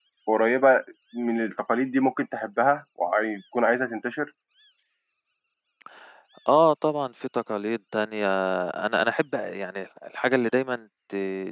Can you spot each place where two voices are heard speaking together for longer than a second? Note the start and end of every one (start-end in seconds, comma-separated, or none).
none